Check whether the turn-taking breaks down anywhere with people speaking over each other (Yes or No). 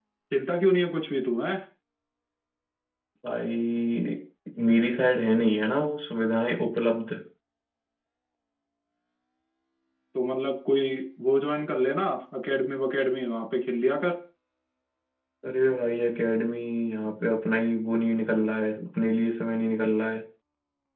No